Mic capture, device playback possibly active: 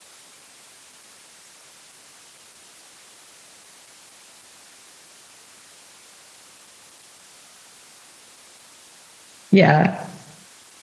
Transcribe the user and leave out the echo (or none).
Yeah.